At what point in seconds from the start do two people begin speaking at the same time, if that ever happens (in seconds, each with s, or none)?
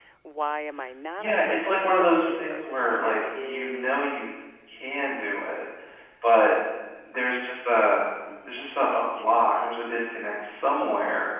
1.2 s